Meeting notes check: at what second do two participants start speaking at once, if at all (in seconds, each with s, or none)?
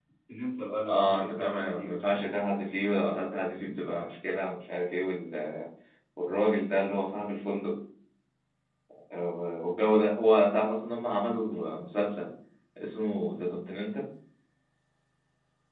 0.9 s